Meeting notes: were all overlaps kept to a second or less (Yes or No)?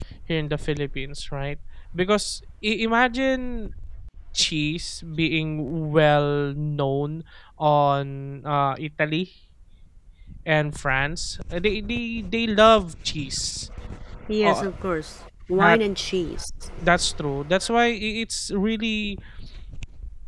Yes